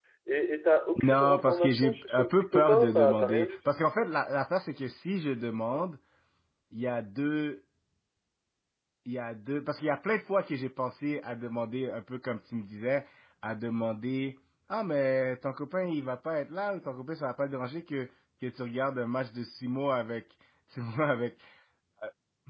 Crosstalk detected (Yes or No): Yes